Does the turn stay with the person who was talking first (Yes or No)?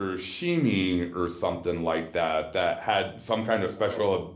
Yes